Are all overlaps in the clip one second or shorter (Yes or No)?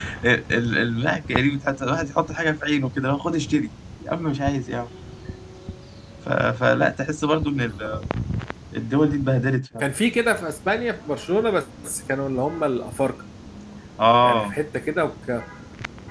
Yes